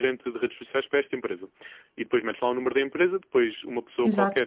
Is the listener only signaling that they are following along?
Yes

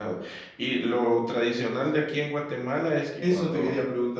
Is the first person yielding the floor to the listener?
Yes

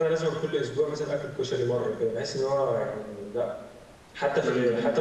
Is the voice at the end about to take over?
No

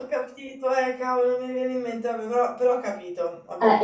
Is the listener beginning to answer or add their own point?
Yes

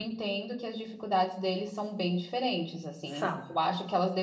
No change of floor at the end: Yes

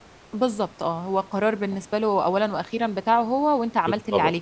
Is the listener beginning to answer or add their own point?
Yes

